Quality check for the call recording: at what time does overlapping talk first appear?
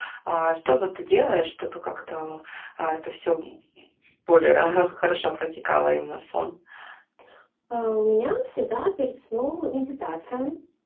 none

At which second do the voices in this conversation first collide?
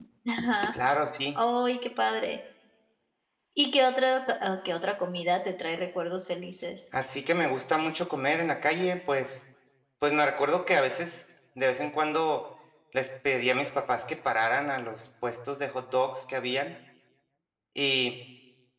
none

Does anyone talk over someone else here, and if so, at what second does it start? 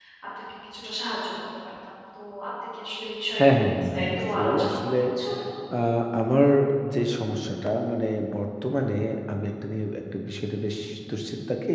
3.3 s

